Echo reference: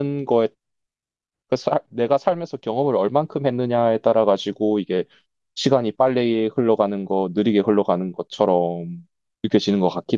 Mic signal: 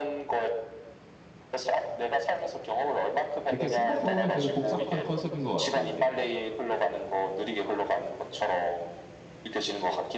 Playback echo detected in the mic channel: Yes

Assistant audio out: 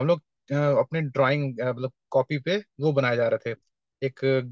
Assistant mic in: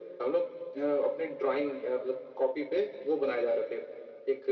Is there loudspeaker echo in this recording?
Yes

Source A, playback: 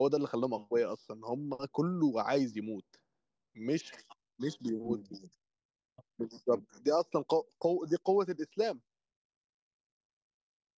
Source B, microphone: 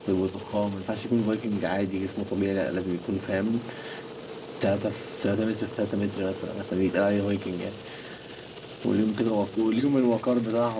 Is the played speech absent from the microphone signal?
Yes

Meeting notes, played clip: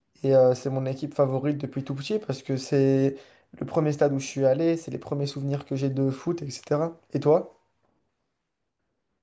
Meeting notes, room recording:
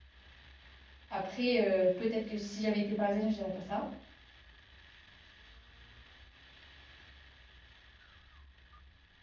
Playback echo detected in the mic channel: No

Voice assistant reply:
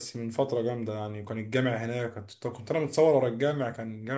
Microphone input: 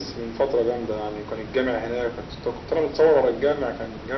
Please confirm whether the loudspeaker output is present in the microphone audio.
Yes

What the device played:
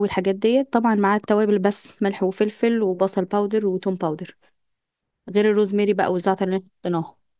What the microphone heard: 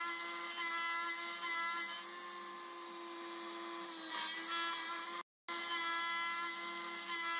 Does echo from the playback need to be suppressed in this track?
No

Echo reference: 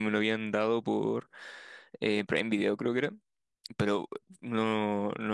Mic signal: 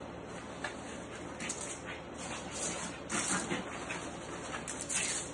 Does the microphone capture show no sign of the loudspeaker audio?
Yes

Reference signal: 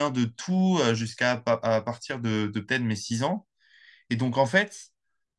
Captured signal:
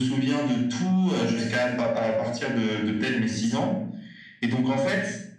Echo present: Yes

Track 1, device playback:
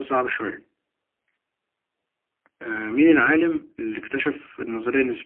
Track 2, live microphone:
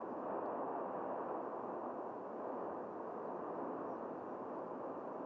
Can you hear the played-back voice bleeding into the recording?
No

